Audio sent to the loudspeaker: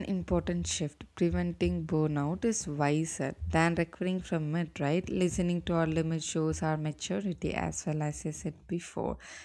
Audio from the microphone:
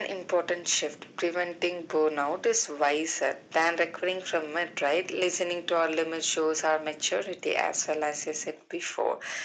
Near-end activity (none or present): none